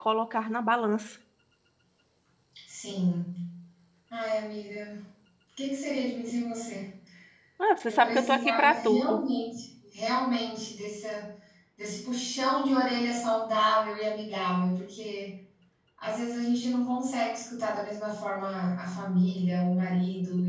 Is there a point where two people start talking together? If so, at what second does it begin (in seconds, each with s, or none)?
7.9 s